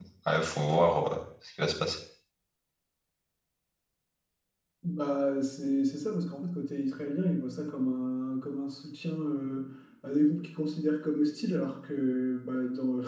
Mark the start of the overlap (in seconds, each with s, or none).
none